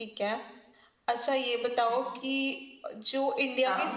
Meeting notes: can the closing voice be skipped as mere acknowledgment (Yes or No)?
Yes